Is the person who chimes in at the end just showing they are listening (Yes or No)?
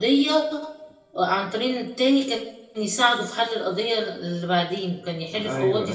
No